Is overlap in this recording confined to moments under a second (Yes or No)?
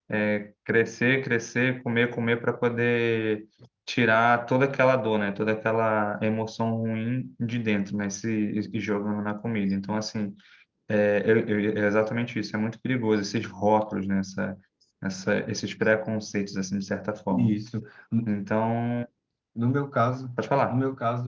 Yes